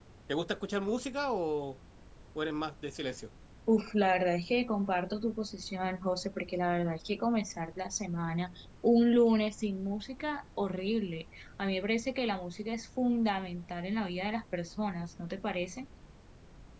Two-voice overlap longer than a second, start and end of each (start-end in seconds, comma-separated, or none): none